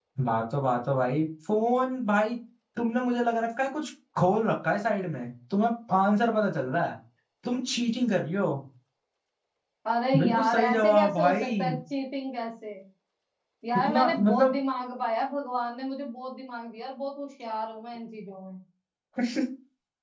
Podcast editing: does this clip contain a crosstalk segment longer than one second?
Yes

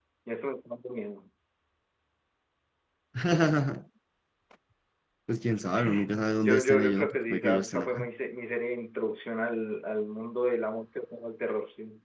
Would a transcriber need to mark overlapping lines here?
Yes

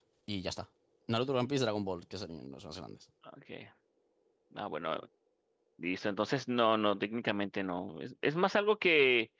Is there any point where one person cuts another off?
No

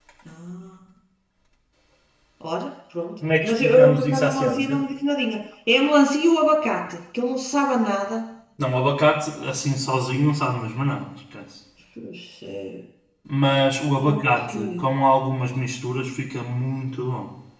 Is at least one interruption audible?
Yes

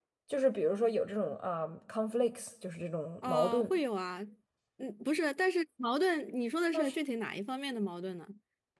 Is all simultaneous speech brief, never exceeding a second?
Yes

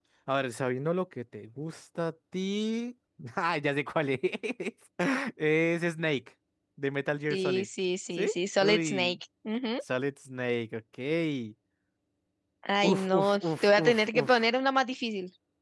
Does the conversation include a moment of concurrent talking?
Yes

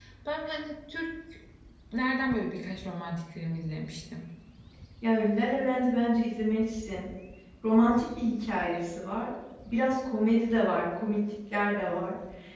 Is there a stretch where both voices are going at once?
No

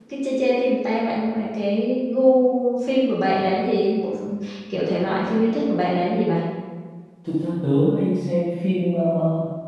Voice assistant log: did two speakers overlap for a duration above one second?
No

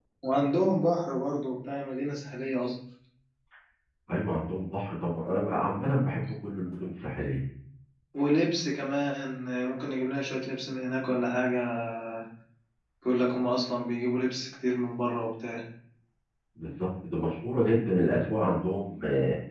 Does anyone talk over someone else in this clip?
No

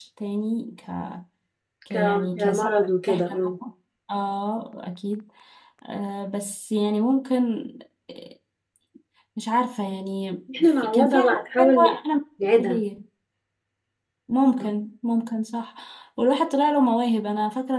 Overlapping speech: Yes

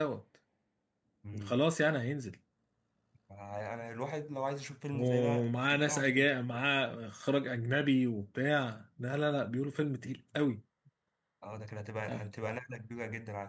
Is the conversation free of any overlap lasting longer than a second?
No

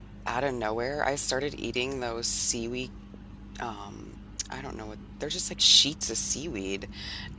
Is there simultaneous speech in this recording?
No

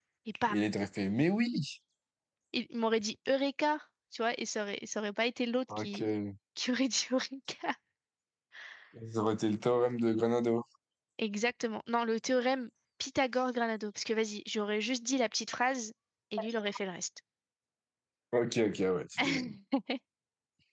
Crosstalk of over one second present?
No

